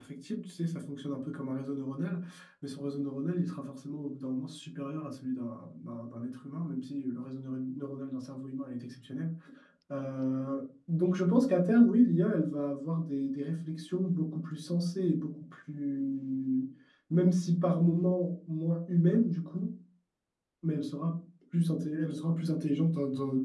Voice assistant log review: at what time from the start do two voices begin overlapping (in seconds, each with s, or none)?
none